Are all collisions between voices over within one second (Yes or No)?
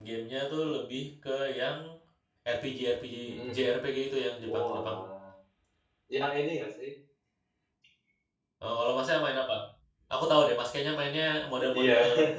Yes